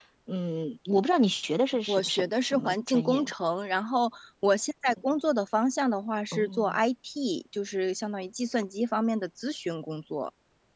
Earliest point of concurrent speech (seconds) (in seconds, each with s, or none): 1.9 s